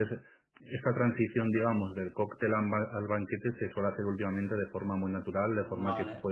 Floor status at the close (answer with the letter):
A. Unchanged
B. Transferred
A